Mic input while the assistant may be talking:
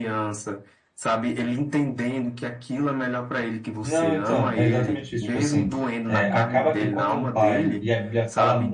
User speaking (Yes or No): Yes